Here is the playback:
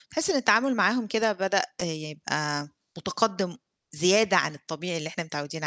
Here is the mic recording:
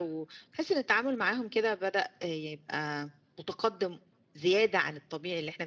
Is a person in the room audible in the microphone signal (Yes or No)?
No